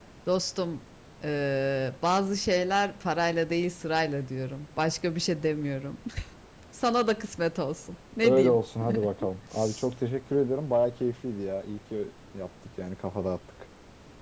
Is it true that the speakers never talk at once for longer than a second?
Yes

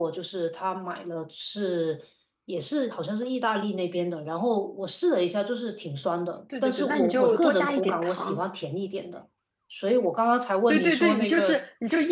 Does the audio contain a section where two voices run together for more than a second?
Yes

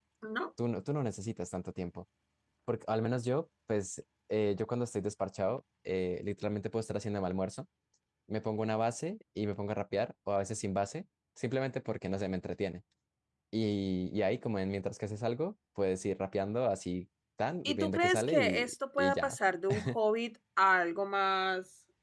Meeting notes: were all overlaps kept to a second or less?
No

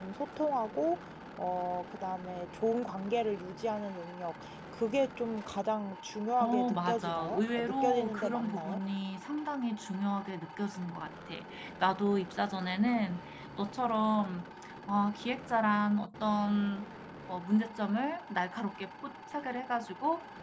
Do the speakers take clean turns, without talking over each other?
No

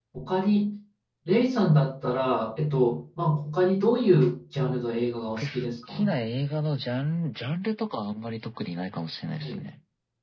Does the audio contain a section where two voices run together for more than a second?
No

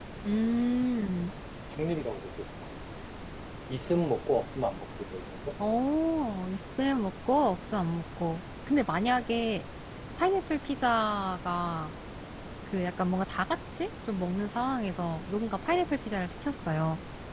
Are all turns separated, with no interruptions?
Yes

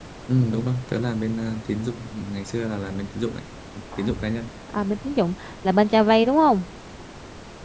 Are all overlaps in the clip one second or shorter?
Yes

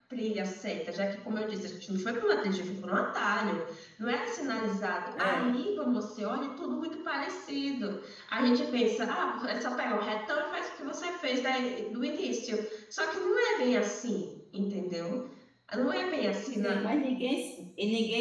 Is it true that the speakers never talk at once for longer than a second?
Yes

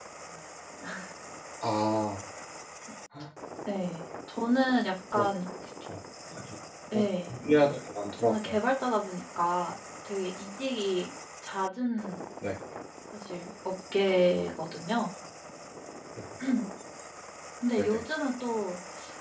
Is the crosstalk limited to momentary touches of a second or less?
Yes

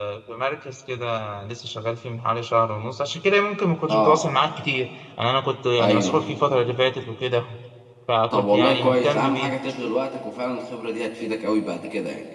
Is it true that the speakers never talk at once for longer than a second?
No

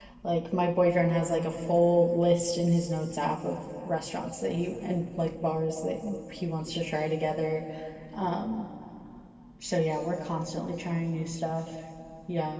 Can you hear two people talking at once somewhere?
No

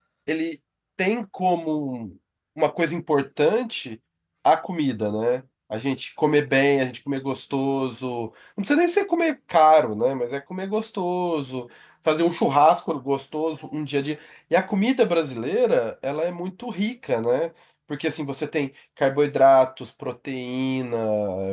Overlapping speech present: No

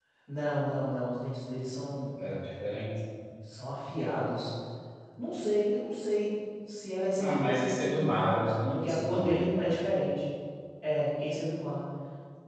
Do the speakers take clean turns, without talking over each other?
No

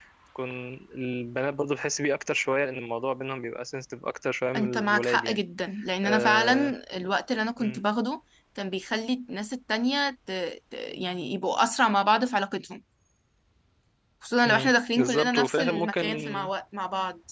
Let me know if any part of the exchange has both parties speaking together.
Yes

